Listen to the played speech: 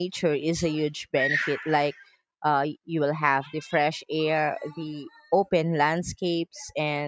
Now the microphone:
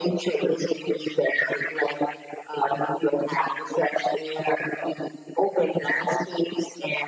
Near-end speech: none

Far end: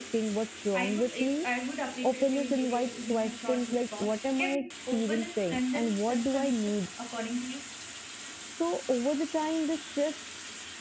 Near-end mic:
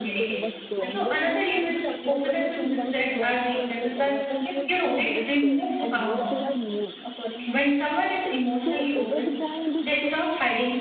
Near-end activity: present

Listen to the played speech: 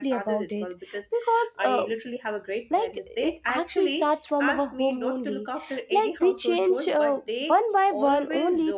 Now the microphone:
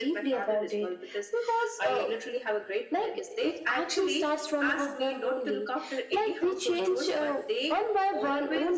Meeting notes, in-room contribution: none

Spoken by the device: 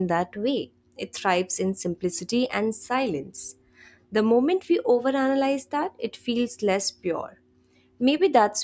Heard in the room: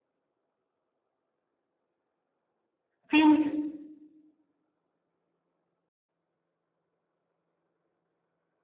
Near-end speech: present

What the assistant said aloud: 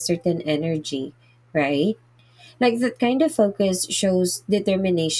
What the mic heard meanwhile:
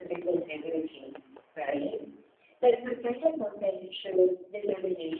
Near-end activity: none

